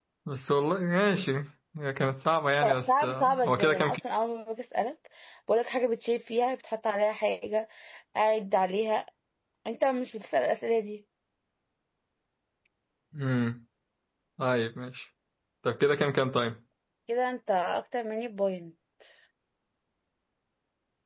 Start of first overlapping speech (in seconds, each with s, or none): 2.6 s